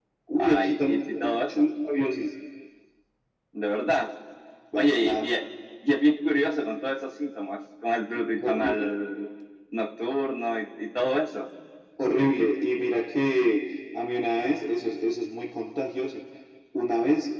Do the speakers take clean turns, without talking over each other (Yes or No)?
No